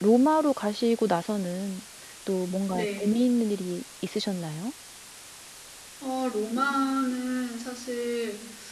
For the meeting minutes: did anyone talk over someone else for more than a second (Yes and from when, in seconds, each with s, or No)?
No